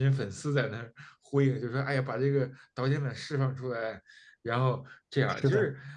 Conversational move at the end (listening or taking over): listening